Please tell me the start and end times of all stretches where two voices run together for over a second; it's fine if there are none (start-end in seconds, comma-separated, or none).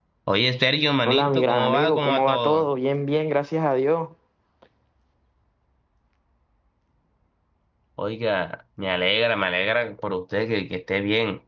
1.0-2.7